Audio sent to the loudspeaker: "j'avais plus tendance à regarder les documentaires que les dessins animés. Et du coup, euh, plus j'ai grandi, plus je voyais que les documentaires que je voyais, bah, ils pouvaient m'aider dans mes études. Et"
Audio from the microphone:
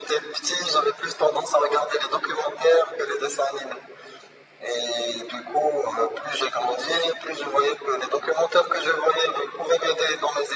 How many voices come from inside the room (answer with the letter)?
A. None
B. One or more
A